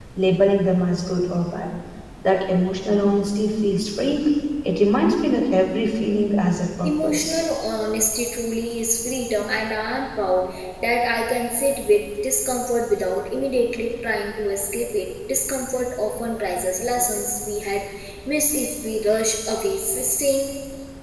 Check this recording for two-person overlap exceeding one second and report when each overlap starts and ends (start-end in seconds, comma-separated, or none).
none